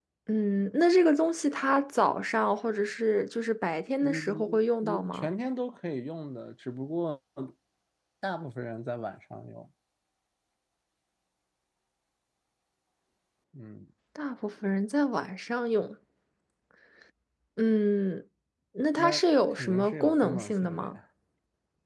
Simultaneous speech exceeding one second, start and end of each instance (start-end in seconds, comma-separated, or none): 4.0-5.3, 19.0-21.0